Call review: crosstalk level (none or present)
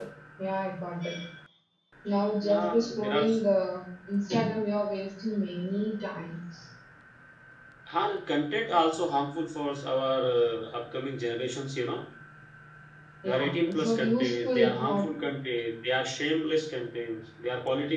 present